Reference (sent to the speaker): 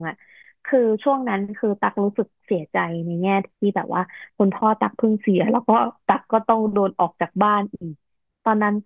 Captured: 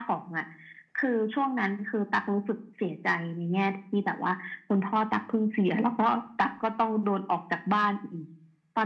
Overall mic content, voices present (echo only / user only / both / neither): echo only